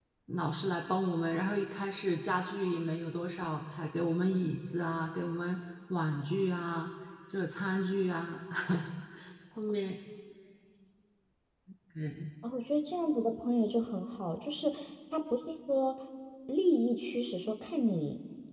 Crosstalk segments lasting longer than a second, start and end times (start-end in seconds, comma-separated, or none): none